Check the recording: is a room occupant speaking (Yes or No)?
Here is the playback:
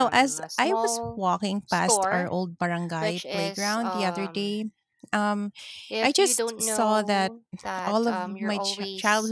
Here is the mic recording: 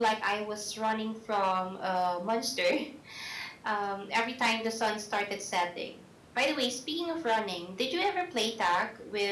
Yes